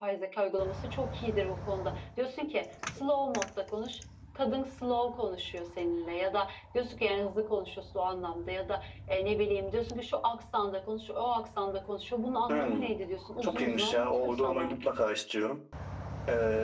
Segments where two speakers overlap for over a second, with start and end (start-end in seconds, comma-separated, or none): 13.4-14.7